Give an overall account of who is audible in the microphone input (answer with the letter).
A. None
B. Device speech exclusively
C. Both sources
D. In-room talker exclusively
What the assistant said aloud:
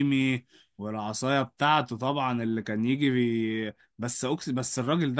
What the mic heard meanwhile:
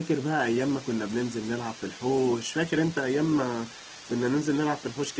D